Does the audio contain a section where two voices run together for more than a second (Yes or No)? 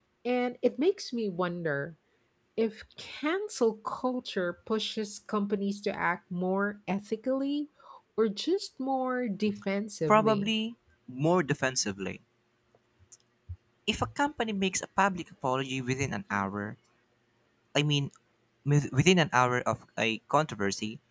No